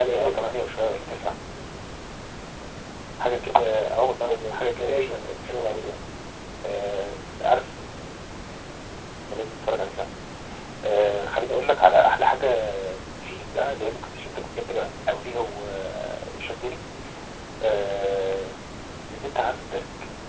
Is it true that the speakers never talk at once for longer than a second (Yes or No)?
No